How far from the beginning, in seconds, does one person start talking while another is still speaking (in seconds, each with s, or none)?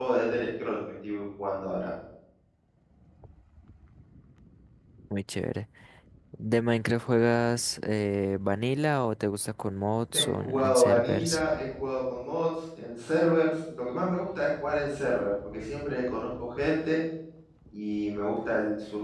10.1 s